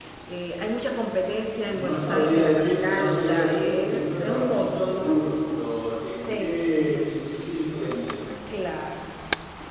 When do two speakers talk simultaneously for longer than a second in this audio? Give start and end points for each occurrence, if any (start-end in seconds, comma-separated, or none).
1.7-5.2